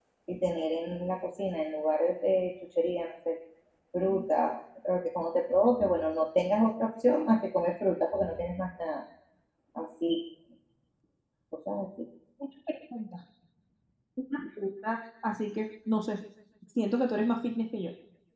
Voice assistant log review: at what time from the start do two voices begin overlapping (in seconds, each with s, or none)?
none